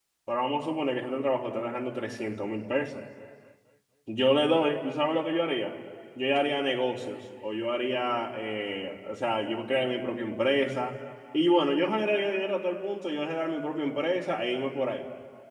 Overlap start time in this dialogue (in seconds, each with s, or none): none